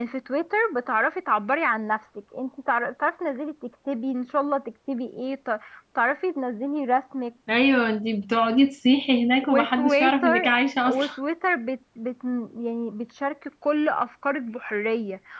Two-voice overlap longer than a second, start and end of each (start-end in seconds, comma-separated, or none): 9.4-11.1